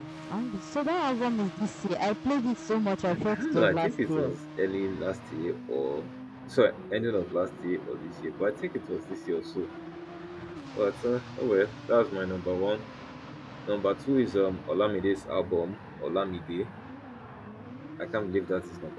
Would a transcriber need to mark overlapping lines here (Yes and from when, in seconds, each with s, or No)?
Yes, from 3.1 s